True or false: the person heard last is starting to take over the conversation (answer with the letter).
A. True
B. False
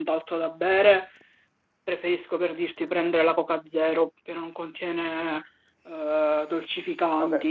A